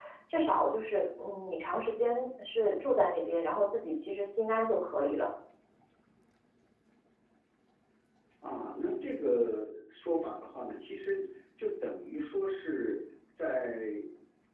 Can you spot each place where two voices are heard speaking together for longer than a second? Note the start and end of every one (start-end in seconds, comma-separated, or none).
none